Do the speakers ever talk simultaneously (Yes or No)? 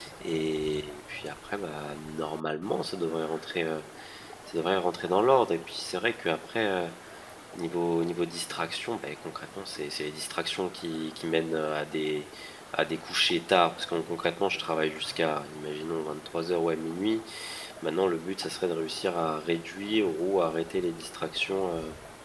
No